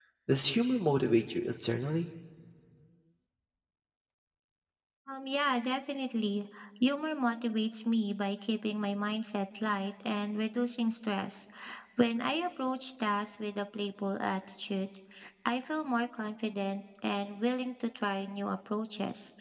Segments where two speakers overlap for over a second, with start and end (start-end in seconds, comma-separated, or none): none